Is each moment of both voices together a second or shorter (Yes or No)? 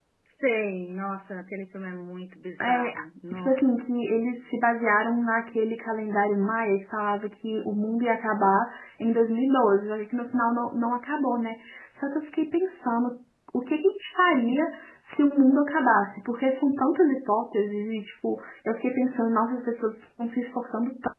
Yes